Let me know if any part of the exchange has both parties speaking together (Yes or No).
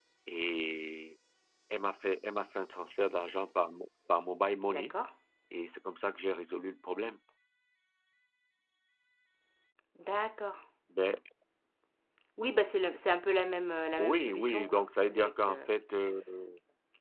Yes